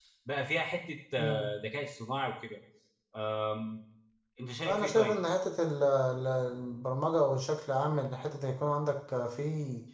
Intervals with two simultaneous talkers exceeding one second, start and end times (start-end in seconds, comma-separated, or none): none